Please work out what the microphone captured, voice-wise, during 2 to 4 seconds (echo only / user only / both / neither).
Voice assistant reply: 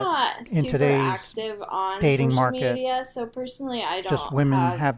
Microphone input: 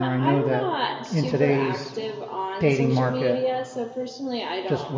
echo only